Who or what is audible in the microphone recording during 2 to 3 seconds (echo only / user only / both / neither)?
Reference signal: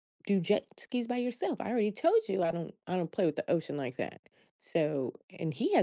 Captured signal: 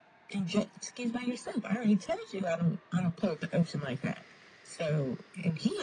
echo only